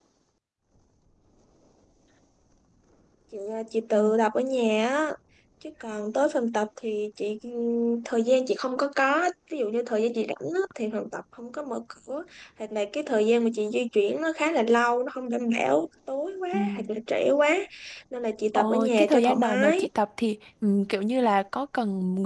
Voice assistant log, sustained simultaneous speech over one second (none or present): present